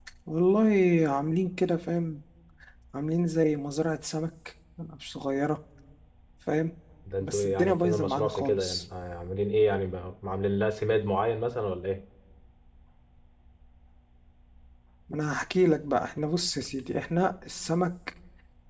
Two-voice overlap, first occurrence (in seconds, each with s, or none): 7.2 s